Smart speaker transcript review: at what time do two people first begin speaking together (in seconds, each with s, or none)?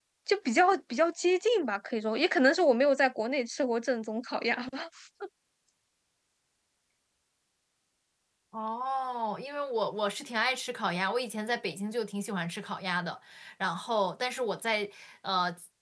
none